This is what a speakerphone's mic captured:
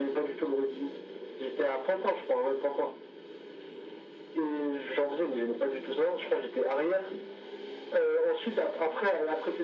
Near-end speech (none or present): none